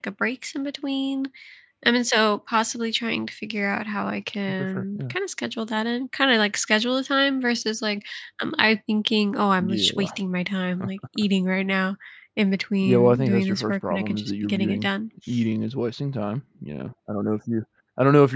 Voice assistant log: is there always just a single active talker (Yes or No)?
No